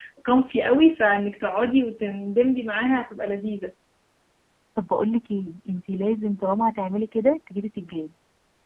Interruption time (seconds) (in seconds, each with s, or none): none